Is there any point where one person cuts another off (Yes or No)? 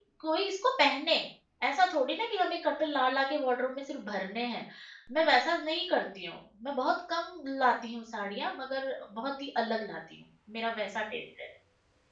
No